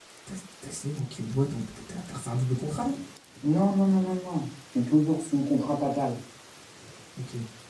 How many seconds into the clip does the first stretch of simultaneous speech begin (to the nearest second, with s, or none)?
none